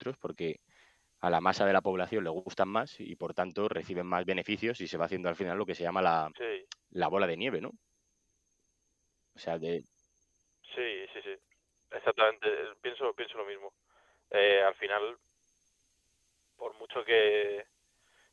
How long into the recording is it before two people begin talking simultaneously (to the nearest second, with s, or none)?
none